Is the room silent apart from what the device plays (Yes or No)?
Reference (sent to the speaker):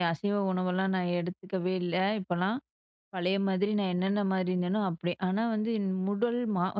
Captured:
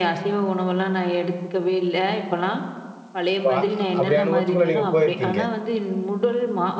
No